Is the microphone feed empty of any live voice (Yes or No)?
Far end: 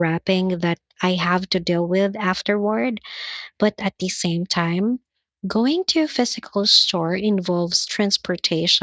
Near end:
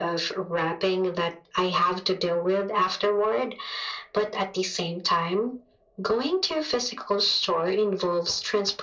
Yes